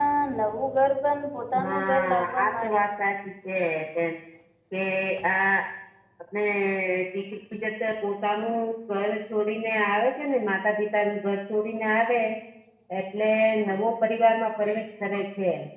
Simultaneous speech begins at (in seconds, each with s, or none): 1.5 s